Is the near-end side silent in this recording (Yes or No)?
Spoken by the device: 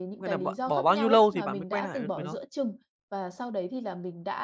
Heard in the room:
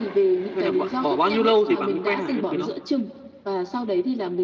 Yes